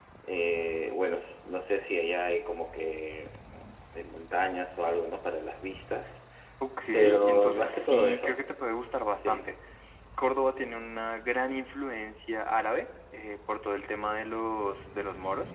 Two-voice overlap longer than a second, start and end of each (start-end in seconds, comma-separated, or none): 6.9-8.4